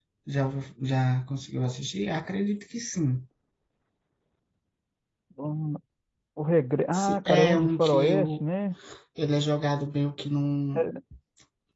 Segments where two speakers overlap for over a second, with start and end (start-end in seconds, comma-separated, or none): 6.9-8.4